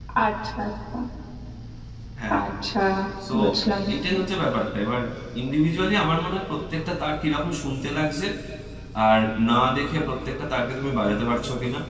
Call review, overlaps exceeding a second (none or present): none